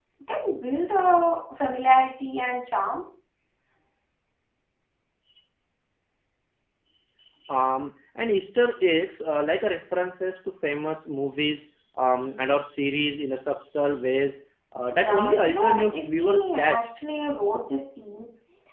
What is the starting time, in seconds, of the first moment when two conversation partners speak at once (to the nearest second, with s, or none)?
15 s